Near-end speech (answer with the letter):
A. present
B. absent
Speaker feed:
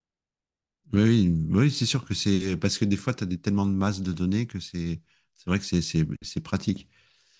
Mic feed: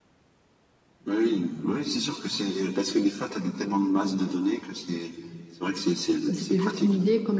A